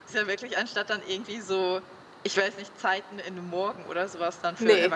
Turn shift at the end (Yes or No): Yes